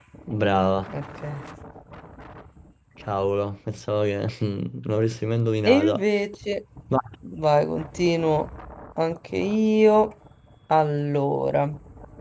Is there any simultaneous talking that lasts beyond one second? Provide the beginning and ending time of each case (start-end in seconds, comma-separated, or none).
none